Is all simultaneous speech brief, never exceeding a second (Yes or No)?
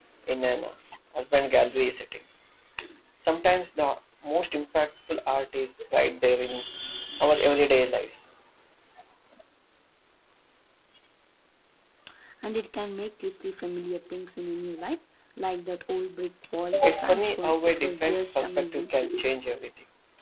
No